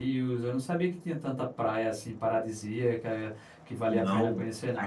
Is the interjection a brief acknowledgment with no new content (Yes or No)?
No